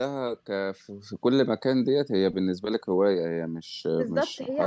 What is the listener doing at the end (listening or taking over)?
taking over